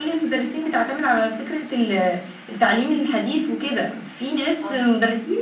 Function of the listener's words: listening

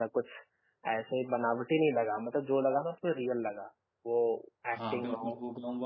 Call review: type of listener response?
taking over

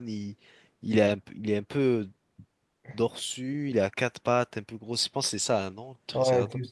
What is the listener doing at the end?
taking over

